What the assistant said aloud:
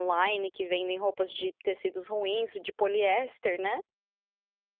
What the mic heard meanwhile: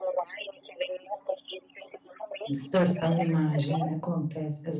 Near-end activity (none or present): present